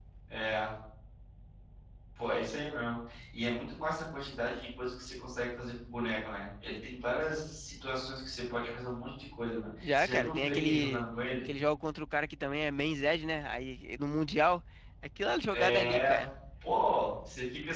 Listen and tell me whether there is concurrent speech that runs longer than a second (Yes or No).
Yes